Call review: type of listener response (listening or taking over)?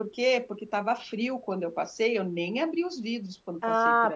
taking over